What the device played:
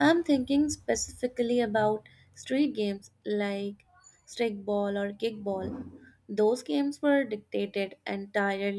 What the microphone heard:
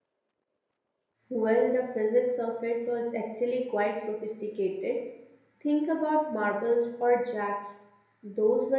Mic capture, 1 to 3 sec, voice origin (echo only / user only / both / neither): user only